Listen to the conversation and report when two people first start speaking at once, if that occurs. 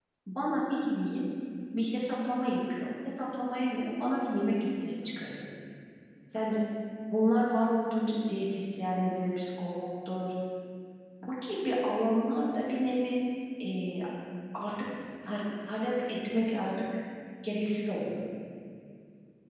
none

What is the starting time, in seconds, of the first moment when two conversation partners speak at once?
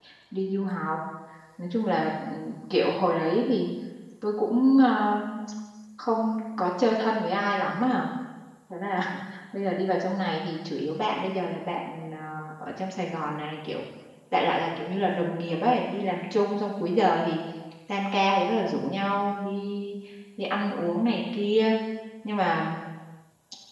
none

